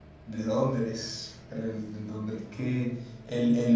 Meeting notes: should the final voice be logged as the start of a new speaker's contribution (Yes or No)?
No